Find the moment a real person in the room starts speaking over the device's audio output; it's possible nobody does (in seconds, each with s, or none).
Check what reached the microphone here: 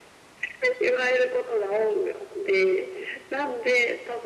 none